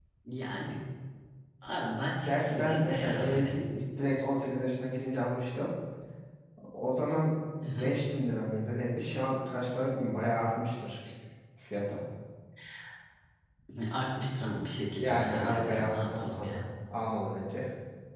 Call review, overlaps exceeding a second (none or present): present